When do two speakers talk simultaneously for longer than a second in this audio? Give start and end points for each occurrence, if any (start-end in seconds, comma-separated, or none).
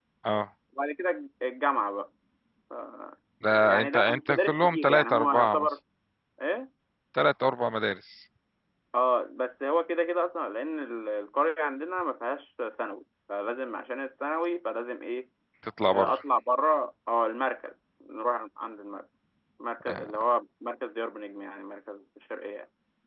3.6-5.7